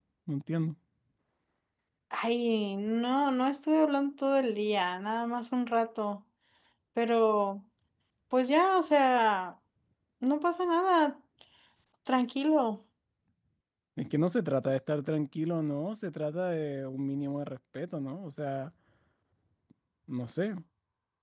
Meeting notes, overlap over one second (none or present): none